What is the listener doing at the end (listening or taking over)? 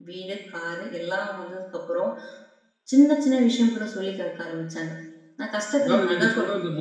taking over